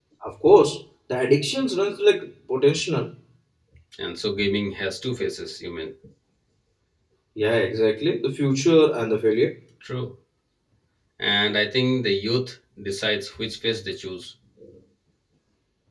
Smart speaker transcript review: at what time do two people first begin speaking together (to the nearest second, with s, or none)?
none